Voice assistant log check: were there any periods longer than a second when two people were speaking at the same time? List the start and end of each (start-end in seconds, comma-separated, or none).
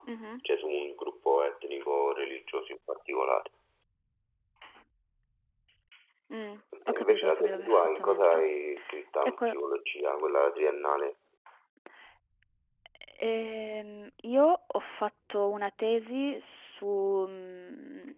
6.9-8.4